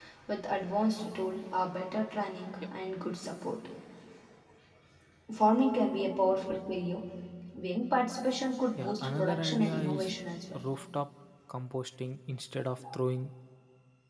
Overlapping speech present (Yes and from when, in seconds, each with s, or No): Yes, from 8.8 s